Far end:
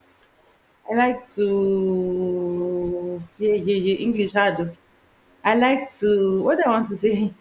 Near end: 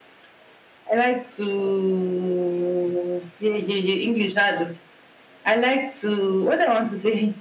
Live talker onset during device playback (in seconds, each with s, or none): none